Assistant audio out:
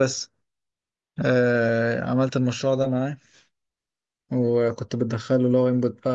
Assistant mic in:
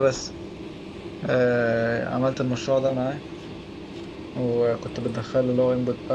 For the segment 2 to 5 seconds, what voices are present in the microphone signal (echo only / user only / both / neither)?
echo only